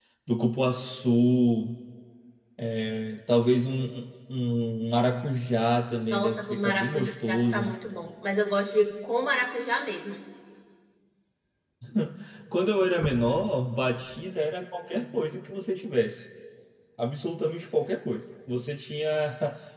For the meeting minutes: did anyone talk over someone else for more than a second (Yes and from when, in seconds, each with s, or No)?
Yes, from 6.1 s